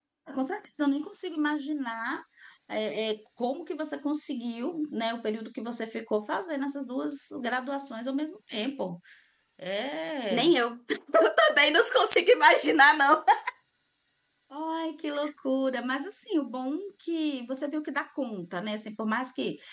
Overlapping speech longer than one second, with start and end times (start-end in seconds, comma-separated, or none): none